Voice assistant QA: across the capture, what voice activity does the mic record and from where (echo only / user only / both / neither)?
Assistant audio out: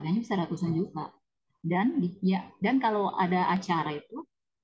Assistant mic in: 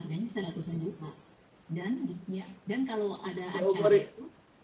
both